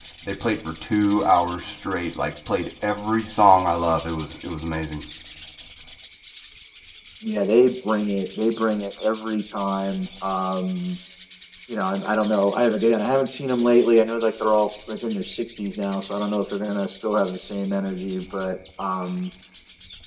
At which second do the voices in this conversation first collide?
none

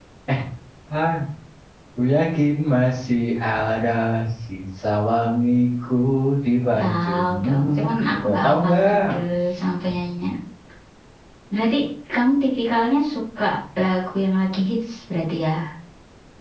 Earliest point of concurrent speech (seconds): 6.7 s

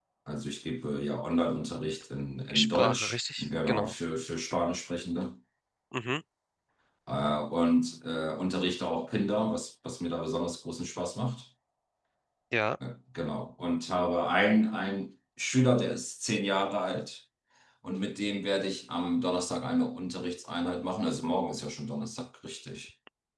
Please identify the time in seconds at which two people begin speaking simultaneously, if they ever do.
2.5 s

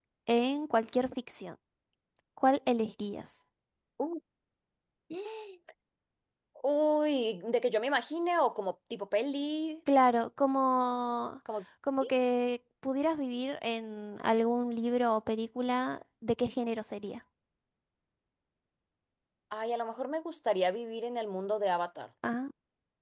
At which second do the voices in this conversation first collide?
none

